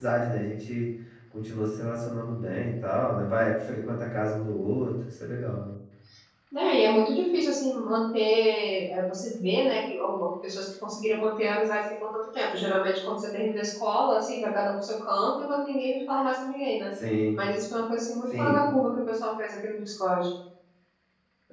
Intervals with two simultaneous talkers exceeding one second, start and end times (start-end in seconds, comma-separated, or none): none